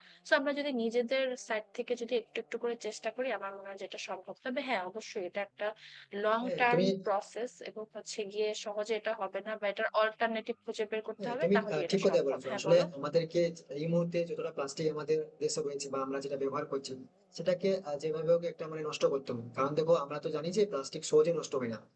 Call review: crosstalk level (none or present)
present